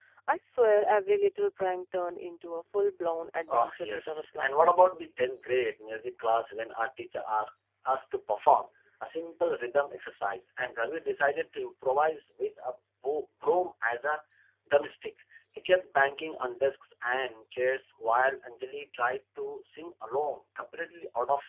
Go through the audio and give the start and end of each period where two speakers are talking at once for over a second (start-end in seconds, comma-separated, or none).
3.5-4.7